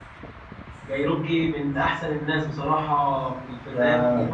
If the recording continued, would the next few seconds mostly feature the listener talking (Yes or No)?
Yes